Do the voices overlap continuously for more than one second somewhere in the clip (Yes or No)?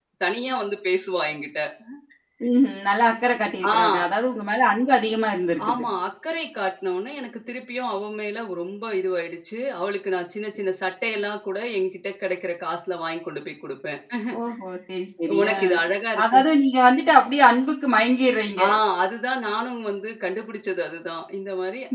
No